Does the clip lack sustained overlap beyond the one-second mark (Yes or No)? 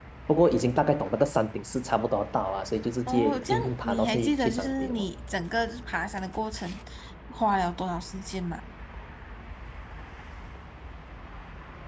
No